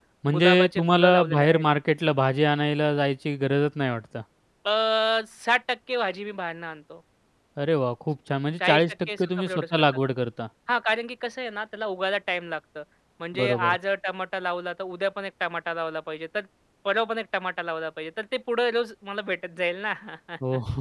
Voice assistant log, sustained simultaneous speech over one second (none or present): present